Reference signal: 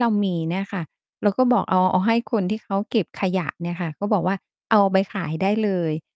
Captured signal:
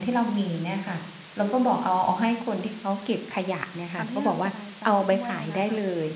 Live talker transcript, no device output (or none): ทำให้เราสบายใจด้วยอะนะคะ